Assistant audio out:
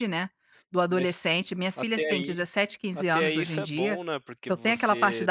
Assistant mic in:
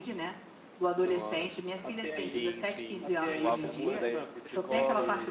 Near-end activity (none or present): present